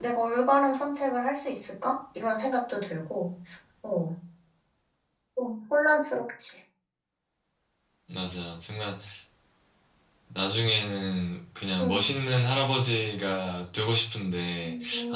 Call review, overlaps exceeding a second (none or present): none